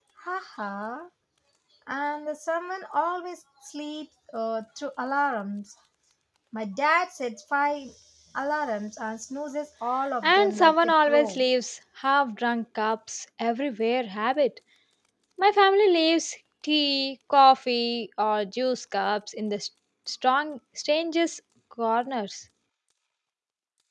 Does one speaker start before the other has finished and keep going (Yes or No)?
Yes